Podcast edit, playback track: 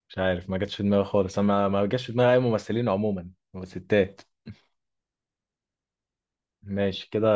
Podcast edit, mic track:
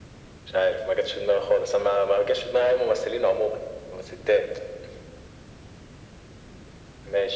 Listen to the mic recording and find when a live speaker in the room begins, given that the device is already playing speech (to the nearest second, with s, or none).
none